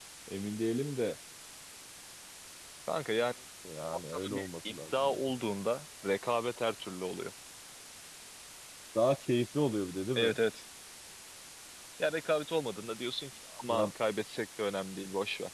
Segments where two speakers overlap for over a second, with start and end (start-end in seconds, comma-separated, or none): 3.9-5.4